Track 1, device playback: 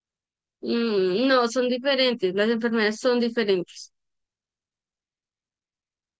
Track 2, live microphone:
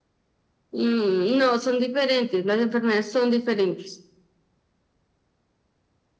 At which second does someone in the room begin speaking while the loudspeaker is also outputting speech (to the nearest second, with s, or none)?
none